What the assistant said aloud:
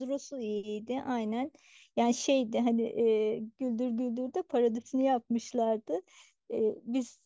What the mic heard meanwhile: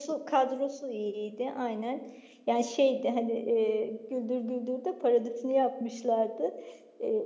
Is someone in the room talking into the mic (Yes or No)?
No